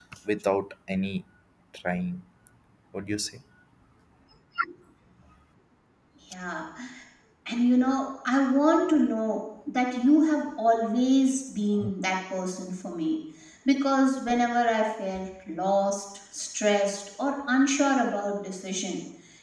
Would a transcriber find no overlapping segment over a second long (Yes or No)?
Yes